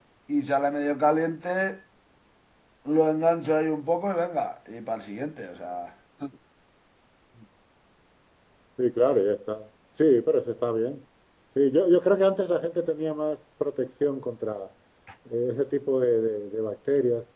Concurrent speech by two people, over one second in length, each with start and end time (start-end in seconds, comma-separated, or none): none